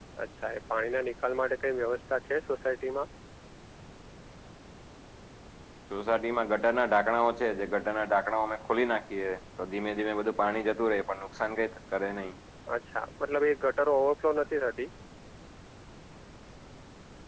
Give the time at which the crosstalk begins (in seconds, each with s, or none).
none